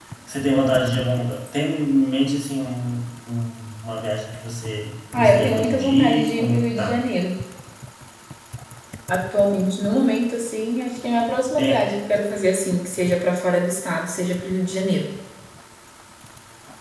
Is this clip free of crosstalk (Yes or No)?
No